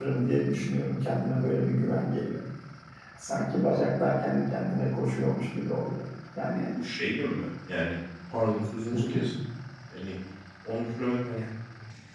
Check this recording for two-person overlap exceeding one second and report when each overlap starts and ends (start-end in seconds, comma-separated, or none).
none